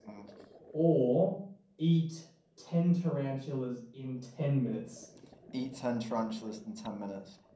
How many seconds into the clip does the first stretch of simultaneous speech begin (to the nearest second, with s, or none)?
none